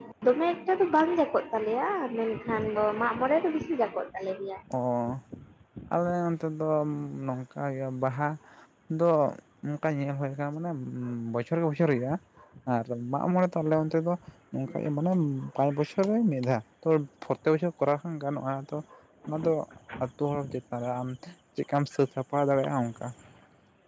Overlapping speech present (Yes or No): No